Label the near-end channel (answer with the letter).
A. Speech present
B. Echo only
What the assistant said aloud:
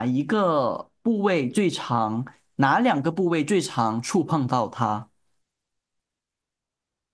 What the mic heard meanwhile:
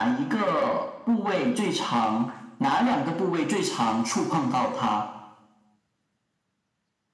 B